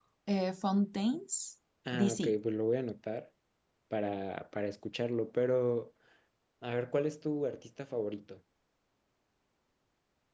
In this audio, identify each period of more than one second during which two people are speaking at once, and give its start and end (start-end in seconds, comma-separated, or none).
none